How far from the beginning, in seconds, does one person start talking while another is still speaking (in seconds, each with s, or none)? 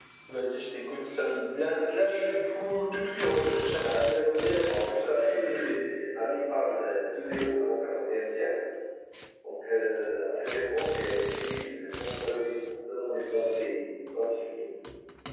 3.8 s